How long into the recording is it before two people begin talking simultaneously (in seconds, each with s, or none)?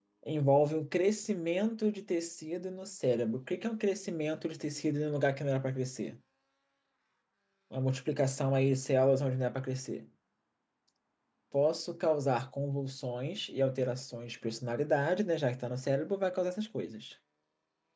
none